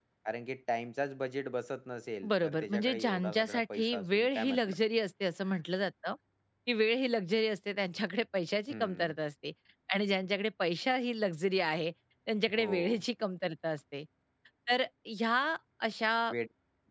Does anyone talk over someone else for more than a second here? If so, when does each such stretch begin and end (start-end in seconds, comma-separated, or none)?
2.3-4.8